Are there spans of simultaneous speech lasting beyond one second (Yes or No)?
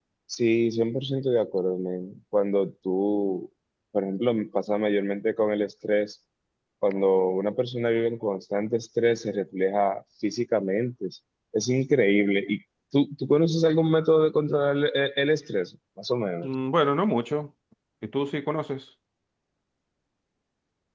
No